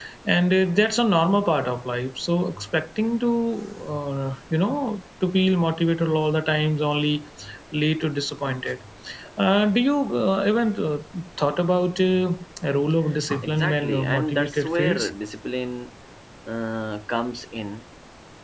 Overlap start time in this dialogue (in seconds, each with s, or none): 13.4 s